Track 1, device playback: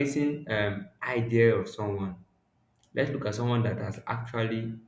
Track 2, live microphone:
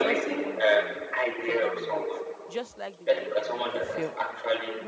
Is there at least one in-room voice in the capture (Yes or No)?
Yes